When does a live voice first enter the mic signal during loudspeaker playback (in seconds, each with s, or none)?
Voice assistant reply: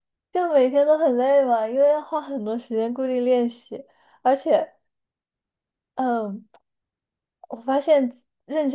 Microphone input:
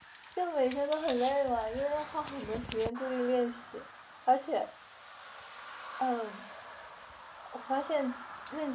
none